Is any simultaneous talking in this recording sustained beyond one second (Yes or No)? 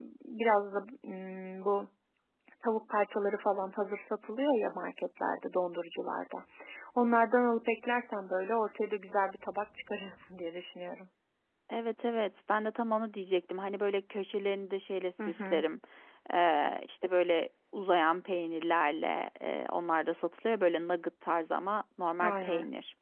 No